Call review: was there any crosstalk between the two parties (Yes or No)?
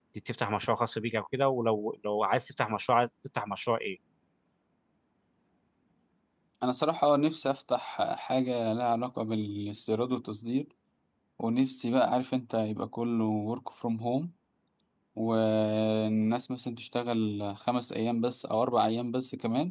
No